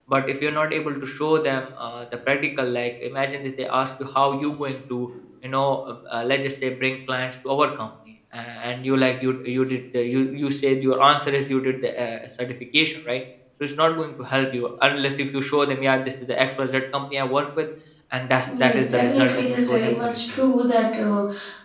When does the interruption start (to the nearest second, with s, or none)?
18 s